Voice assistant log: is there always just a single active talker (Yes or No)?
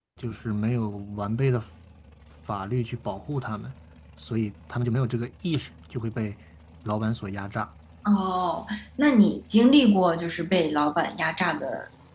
Yes